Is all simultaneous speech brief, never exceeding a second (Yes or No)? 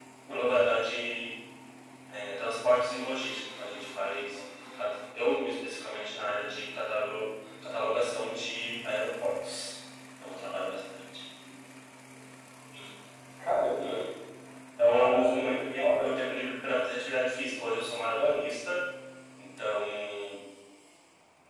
No